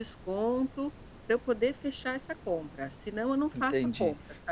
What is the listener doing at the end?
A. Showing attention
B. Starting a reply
B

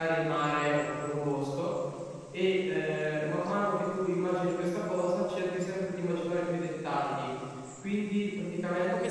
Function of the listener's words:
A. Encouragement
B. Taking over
B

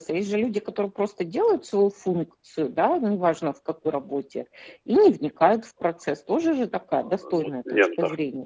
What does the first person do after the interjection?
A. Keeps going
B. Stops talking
B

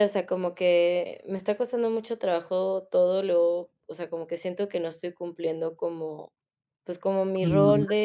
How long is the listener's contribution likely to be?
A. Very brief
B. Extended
A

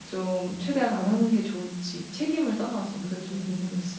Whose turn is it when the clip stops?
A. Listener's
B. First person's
A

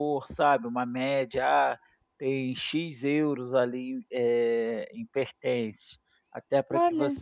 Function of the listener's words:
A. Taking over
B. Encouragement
B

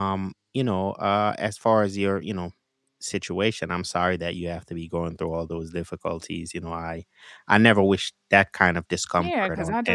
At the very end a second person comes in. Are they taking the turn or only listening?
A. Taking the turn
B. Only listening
A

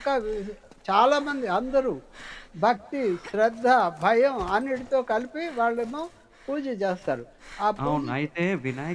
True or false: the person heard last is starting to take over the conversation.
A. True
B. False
A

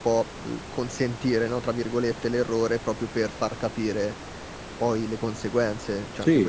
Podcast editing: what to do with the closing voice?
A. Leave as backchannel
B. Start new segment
A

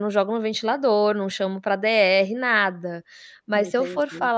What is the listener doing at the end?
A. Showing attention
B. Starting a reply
A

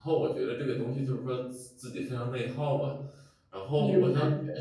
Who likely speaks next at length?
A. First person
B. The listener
A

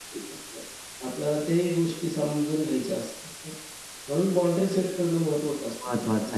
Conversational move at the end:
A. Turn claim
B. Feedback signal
A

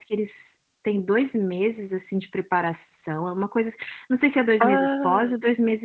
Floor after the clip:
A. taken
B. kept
B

